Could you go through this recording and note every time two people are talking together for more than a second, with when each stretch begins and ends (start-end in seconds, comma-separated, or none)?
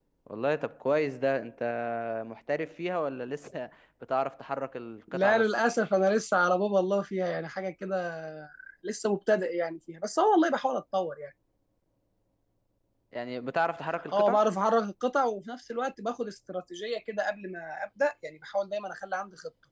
none